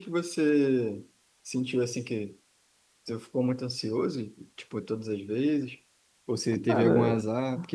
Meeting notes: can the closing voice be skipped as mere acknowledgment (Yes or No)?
Yes